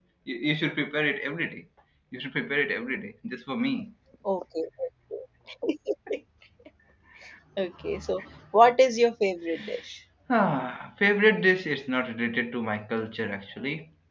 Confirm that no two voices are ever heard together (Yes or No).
Yes